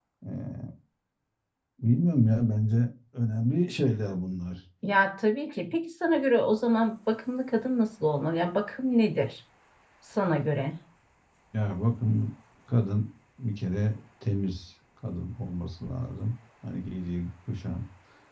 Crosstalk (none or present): none